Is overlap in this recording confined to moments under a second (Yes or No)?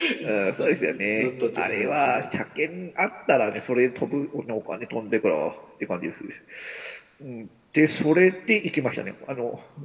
No